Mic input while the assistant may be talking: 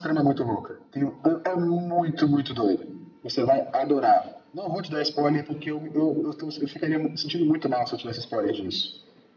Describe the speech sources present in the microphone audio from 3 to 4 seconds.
echo only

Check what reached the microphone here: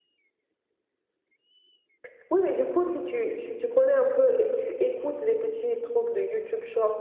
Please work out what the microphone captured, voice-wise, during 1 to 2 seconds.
neither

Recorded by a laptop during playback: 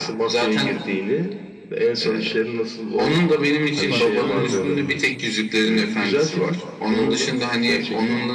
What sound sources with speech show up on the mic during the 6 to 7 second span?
echo only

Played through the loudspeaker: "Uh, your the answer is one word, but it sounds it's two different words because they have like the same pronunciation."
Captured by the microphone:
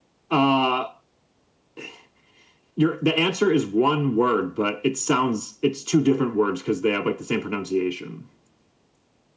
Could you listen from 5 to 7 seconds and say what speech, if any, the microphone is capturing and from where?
echo only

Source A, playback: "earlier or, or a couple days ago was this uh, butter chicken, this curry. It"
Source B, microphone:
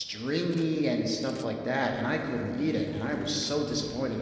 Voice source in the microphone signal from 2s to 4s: user only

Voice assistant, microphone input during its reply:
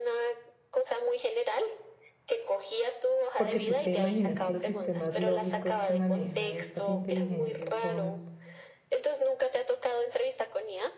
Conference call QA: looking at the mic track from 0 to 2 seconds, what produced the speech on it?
echo only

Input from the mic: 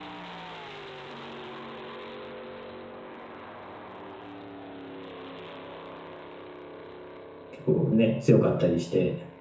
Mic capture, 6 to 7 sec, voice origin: neither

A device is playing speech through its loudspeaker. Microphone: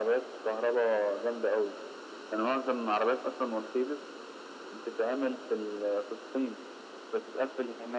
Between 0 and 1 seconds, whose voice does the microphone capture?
echo only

